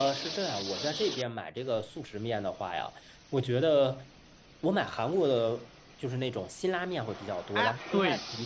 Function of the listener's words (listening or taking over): listening